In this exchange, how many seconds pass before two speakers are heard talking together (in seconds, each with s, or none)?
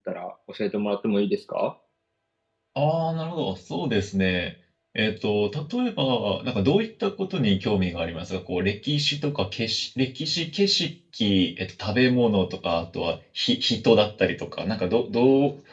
none